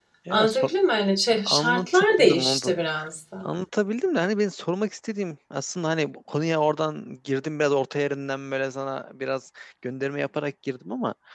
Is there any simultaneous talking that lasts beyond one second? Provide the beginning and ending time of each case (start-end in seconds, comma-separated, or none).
1.3-2.7